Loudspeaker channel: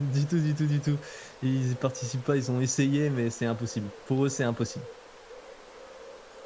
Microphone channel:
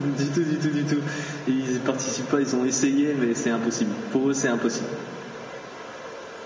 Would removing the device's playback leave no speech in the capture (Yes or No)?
Yes